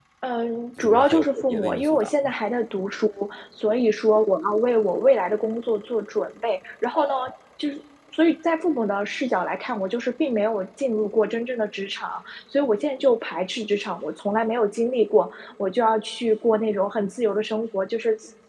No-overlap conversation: No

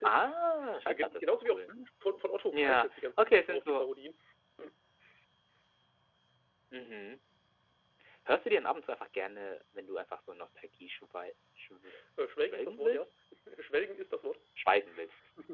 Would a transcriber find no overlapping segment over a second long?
No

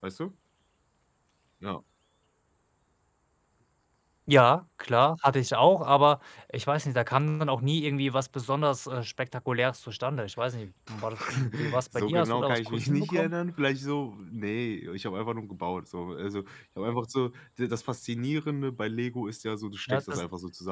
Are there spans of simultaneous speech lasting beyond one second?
Yes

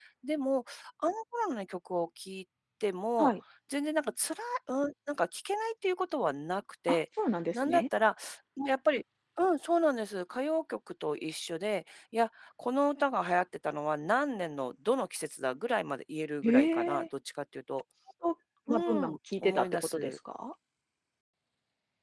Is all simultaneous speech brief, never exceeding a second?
No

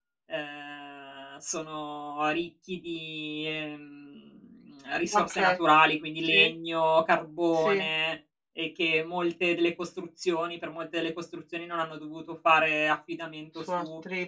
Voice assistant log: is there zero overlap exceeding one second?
Yes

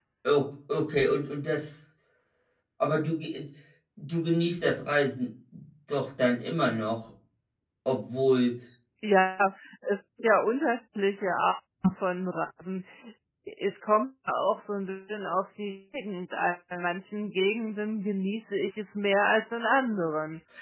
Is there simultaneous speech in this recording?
No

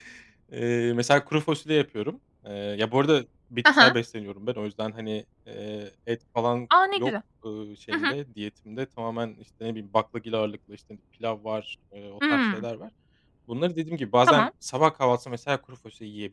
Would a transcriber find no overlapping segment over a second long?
Yes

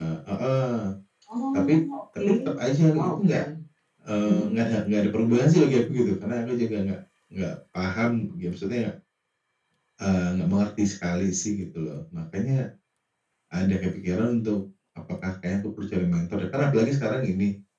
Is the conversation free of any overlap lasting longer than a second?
Yes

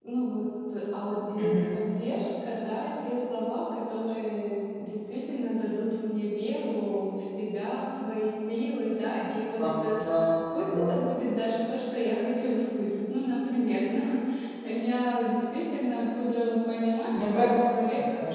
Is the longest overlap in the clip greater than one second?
No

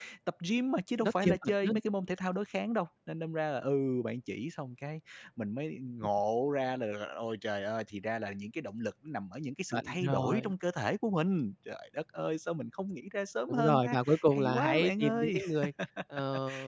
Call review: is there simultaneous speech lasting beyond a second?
Yes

